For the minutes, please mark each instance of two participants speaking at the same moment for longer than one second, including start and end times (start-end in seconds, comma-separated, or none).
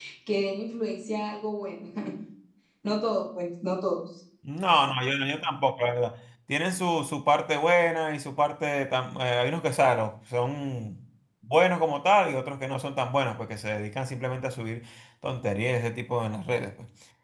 none